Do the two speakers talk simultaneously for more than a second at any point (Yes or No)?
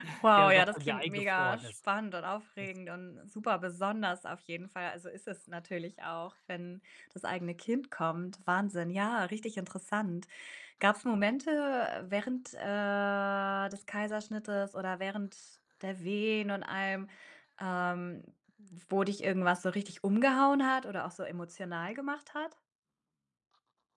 Yes